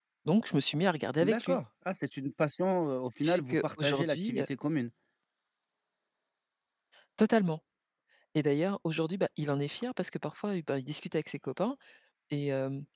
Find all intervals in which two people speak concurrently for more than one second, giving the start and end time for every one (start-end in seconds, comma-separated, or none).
3.2-4.4